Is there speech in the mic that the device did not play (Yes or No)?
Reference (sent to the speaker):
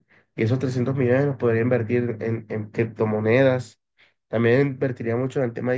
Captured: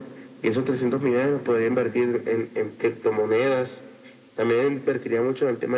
No